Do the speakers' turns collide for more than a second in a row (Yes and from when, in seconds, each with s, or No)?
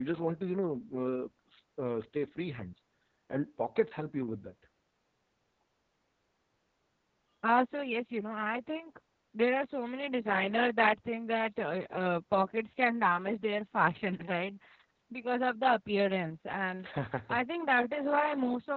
No